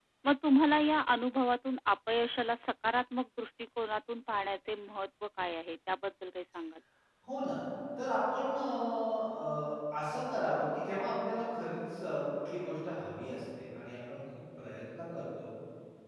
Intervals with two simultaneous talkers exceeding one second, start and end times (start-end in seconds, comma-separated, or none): none